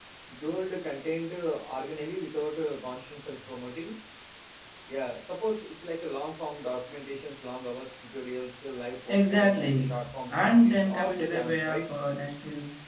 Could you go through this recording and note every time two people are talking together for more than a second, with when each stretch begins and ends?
9.1-11.9

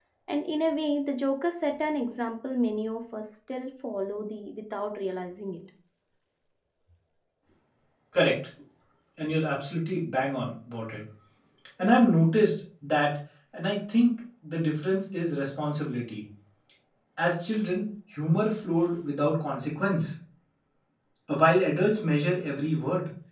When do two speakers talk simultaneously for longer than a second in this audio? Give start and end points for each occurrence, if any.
none

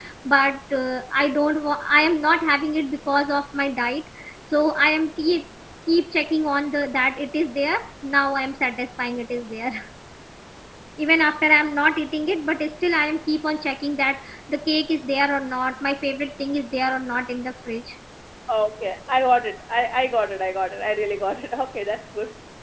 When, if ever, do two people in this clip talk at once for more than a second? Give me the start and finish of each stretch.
none

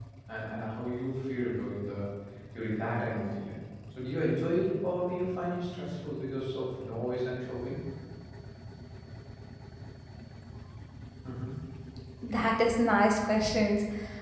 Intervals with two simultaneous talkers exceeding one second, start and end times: none

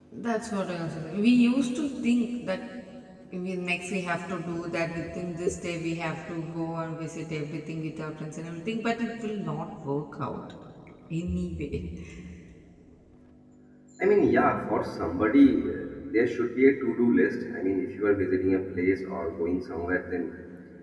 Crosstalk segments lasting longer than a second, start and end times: none

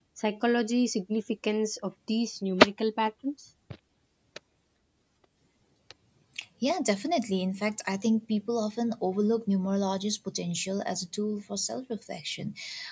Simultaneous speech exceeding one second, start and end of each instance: none

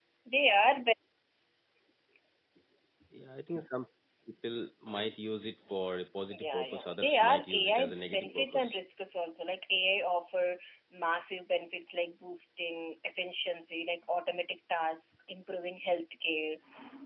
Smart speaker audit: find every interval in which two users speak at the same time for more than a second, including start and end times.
6.3-8.7

